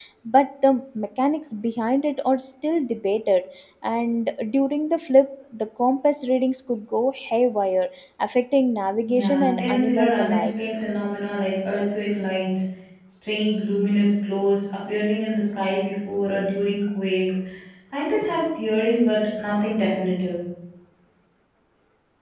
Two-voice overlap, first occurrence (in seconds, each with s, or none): 9.0 s